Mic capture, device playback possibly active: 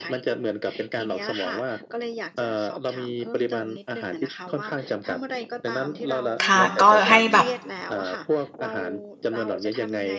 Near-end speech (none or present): present